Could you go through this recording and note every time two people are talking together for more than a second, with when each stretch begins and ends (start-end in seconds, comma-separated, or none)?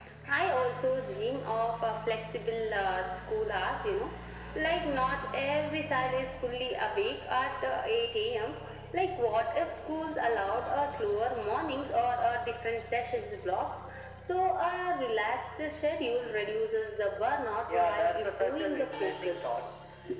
17.7-19.4